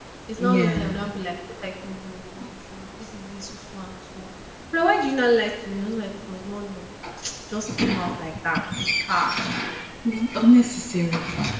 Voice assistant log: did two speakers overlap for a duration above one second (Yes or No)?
No